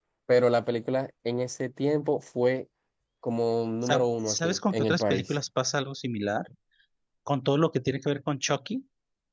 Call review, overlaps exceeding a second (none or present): present